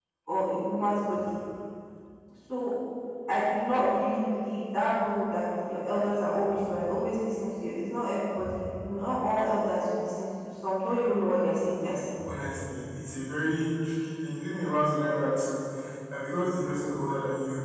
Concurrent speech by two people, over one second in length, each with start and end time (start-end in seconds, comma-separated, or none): none